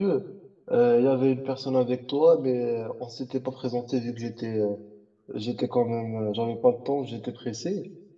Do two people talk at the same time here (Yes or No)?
No